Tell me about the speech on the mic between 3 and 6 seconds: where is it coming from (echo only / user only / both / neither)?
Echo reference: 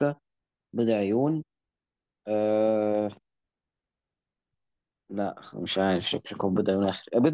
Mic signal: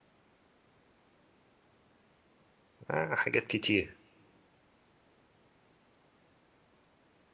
user only